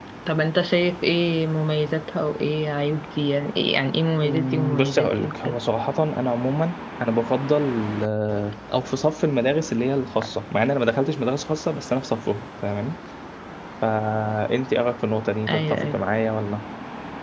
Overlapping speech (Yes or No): Yes